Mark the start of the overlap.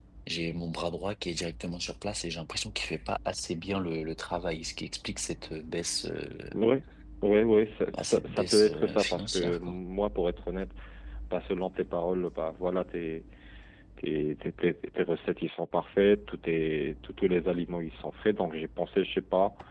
7.9 s

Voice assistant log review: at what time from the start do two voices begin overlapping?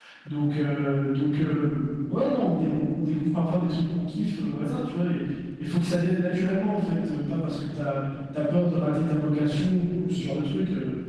none

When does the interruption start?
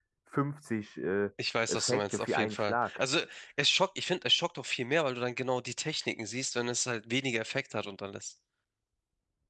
1.7 s

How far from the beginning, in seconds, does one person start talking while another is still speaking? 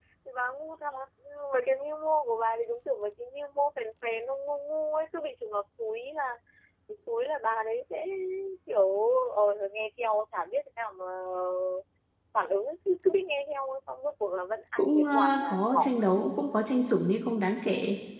14.8 s

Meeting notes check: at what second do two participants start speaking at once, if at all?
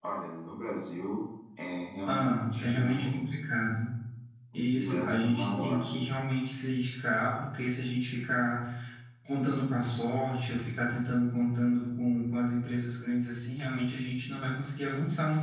2.1 s

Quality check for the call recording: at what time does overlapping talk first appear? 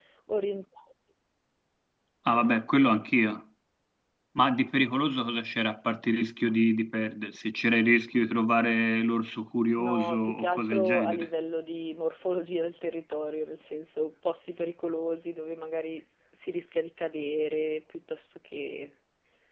9.8 s

